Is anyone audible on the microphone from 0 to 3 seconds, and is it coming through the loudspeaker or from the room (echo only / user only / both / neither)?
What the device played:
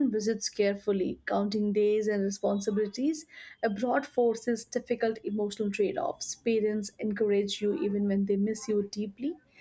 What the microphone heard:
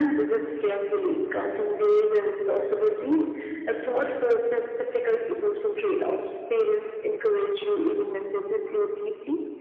echo only